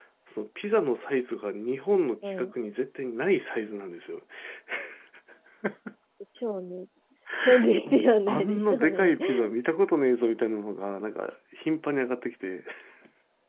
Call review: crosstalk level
present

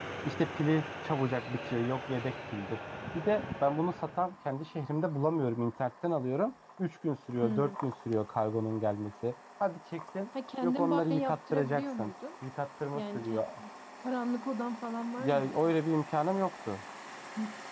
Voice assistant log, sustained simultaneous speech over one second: present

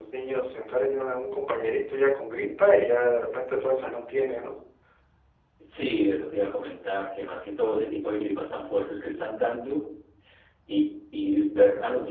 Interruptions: none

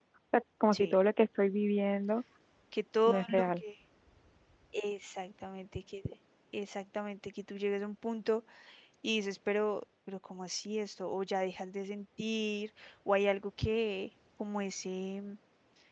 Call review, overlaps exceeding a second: none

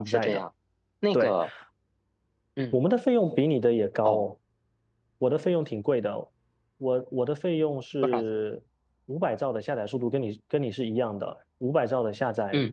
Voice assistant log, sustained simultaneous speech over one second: none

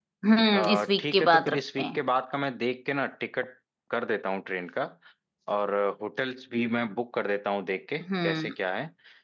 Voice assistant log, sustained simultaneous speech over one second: present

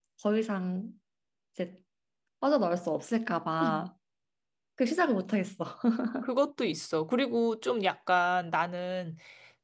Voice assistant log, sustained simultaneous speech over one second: none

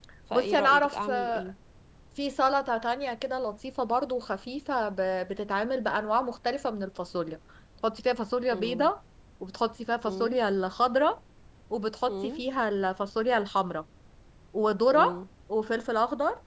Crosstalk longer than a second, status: present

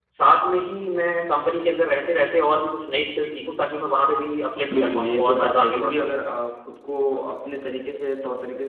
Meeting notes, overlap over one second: present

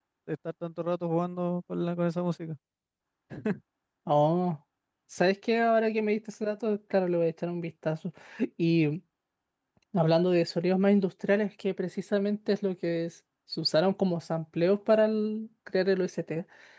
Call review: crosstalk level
none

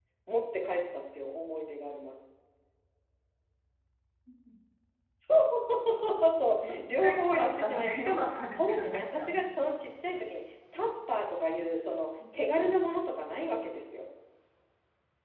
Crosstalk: present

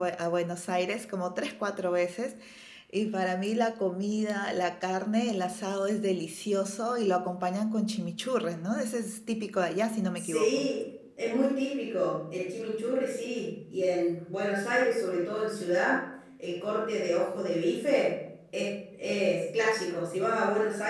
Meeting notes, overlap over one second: none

